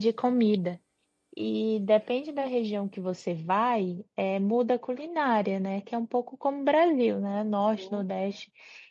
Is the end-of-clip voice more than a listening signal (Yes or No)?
No